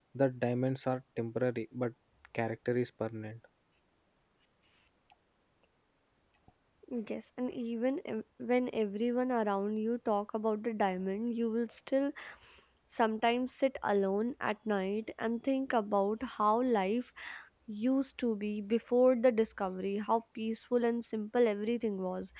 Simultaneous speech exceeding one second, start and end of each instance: none

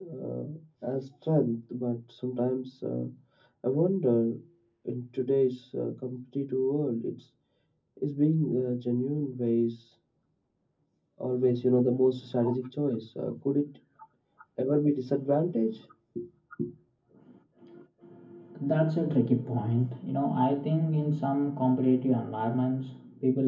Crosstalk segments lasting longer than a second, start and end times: none

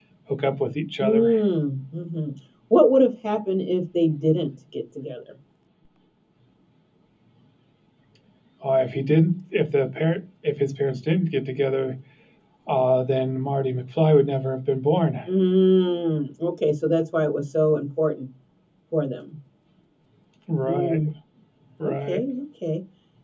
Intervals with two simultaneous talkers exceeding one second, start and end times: none

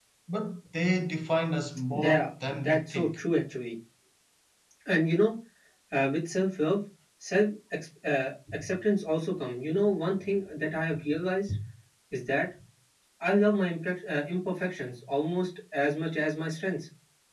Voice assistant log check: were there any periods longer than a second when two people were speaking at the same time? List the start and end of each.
1.9-3.2

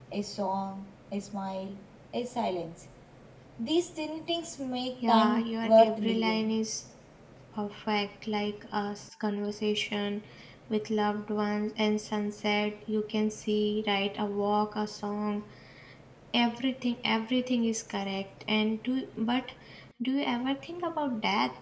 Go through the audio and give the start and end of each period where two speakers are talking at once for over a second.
5.1-6.4

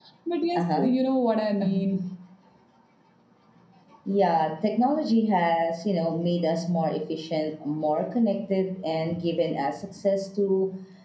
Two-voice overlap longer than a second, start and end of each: none

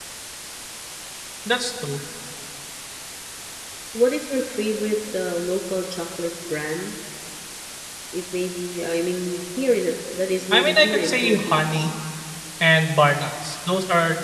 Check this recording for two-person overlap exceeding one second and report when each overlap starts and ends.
10.5-11.9

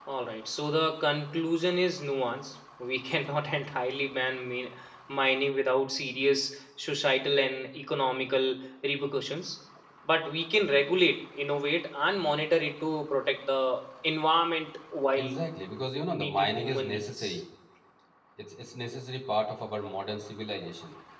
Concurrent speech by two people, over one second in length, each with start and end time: 16.1-17.4

